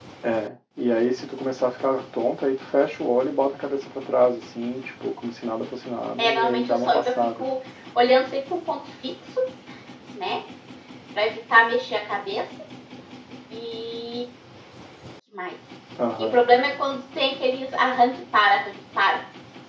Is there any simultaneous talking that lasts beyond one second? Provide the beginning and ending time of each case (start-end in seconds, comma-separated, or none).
6.2-7.4